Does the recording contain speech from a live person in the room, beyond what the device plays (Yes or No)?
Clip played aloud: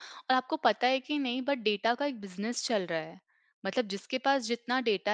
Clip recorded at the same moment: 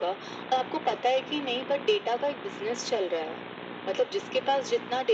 No